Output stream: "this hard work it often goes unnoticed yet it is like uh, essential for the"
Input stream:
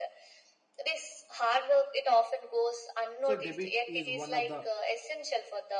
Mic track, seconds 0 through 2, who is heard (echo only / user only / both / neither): echo only